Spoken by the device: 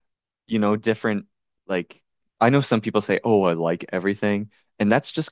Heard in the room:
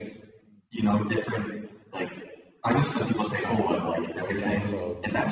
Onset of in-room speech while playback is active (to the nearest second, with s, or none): 3 s